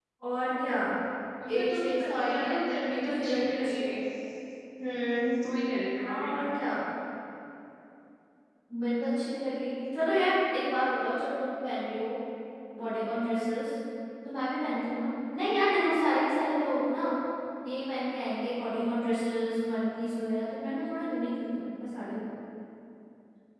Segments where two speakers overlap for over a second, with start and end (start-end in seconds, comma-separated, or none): 1.6-4.0